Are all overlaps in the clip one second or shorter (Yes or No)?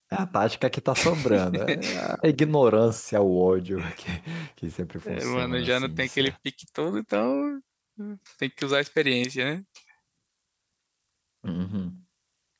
No